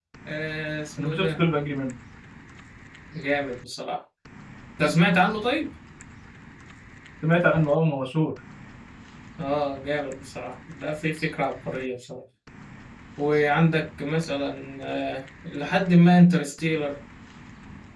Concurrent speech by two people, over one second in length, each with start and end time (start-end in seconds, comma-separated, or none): none